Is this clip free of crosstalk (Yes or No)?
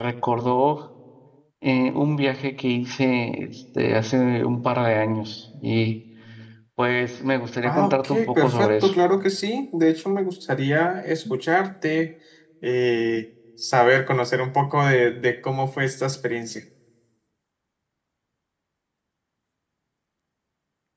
No